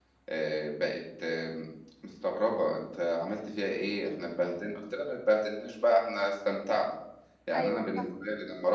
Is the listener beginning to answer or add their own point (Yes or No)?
No